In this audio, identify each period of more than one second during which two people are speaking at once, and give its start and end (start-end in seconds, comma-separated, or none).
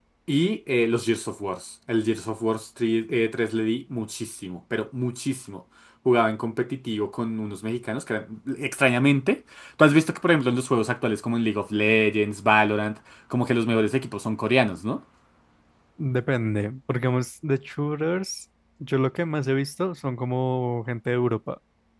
none